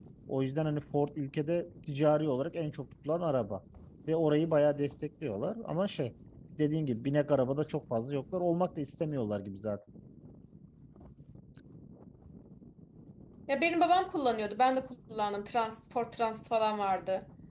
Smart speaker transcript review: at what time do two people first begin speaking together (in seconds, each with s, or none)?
none